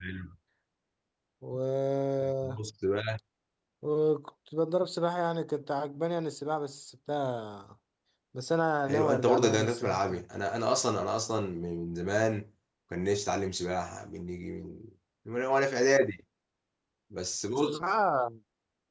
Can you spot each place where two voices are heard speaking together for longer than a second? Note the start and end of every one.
8.9-10.2

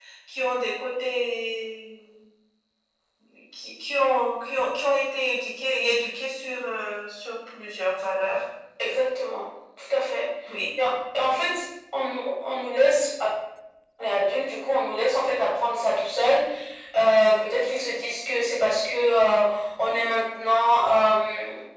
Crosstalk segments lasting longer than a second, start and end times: none

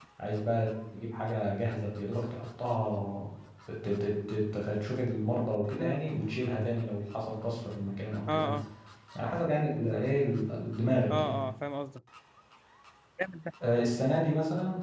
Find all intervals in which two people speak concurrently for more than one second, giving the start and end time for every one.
none

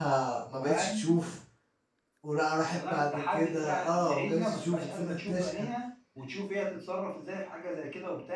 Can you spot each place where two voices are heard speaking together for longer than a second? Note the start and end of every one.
2.7-5.7

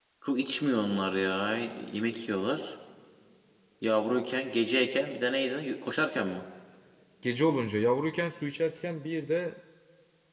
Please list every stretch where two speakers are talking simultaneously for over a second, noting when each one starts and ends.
none

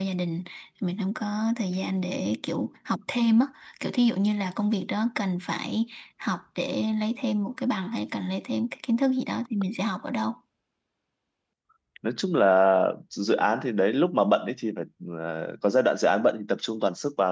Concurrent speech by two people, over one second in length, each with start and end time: none

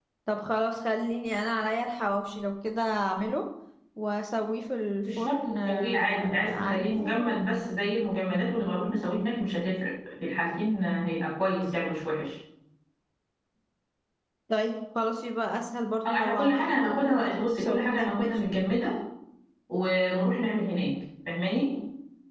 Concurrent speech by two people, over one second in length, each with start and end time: 5.0-7.4, 16.1-18.4

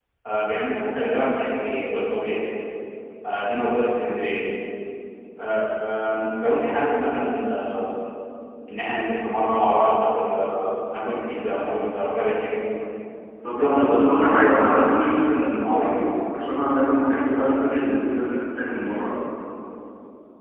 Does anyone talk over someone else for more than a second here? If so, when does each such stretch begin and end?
13.6-15.9

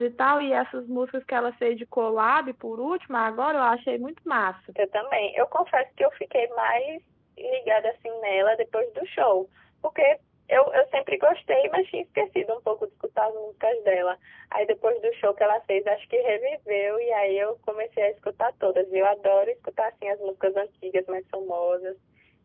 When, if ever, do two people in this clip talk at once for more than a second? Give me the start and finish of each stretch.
none

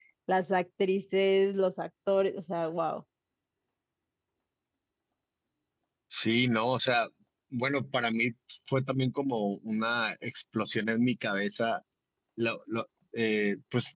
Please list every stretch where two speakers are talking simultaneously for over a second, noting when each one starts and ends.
none

